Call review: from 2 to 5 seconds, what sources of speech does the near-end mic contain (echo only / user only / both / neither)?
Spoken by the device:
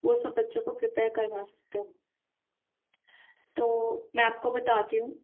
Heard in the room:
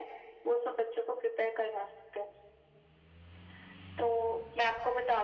echo only